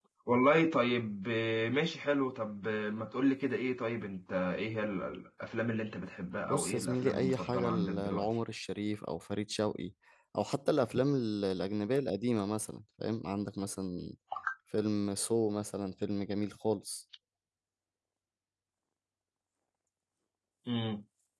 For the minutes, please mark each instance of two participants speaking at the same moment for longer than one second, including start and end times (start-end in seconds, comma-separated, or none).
6.5-8.3